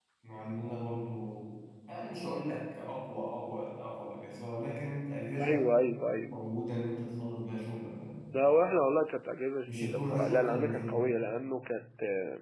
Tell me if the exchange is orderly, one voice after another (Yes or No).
No